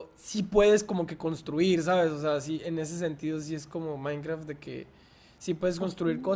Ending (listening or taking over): listening